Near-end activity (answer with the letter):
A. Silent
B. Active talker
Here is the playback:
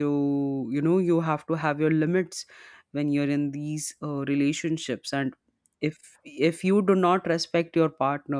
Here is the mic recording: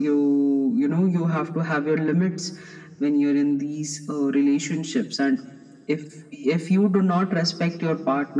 A